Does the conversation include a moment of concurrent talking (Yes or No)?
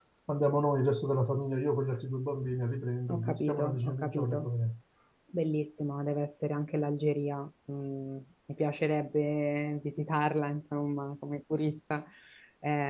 Yes